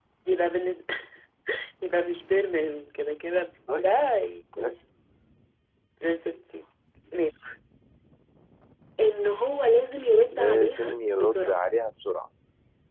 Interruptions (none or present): present